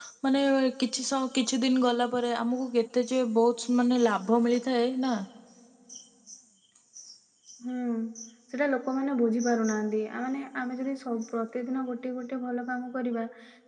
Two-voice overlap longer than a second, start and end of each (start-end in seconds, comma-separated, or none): none